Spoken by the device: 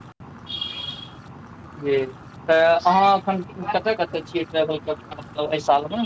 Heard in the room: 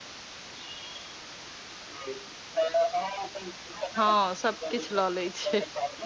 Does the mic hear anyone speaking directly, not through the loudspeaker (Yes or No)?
Yes